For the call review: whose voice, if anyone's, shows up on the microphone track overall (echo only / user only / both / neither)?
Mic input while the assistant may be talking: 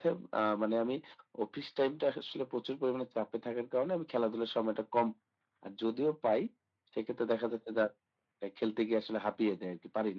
echo only